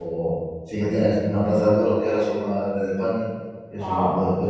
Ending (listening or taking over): listening